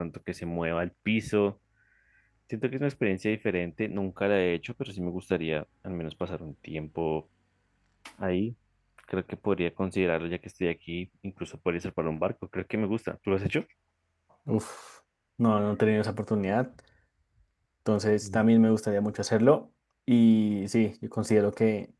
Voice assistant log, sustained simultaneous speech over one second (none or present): none